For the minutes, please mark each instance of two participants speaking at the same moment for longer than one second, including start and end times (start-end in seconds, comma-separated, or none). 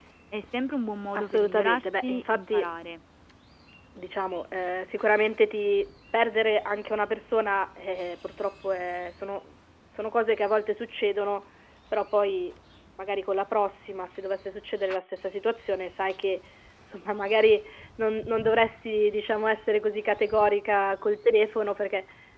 1.1-2.6